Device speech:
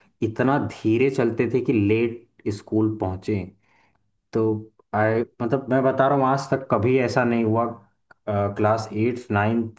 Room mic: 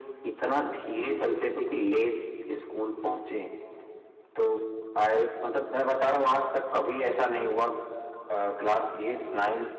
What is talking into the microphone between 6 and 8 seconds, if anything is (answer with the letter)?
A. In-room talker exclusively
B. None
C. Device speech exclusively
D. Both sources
C